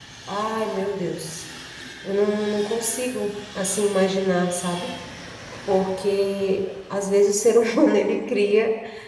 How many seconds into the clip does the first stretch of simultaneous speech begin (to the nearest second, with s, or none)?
none